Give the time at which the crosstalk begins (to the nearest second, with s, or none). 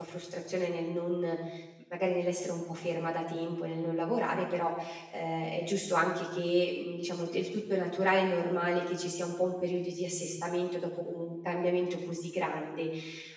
none